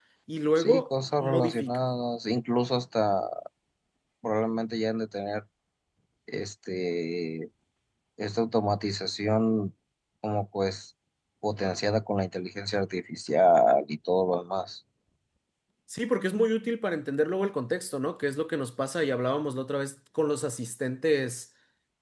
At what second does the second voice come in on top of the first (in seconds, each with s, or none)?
0.6 s